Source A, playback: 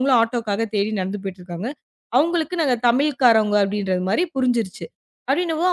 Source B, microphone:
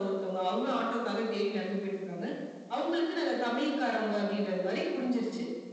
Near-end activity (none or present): none